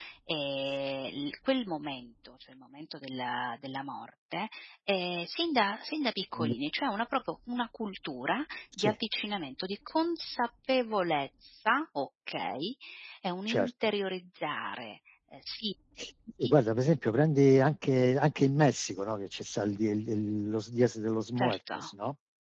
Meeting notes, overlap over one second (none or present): none